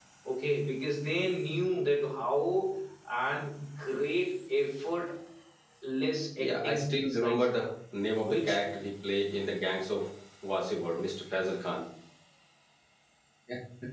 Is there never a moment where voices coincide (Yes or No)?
No